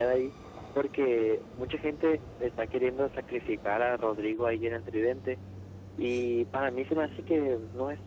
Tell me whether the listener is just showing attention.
Yes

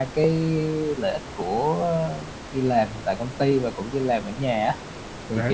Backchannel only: Yes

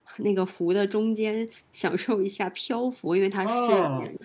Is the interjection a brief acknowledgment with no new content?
No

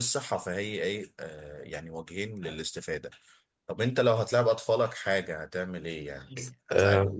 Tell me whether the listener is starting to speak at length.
Yes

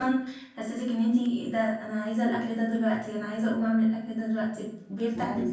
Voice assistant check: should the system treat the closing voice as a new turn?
Yes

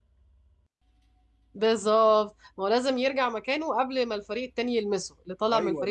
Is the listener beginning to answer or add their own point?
Yes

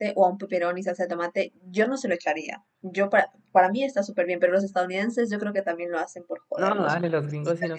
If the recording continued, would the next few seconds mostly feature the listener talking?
Yes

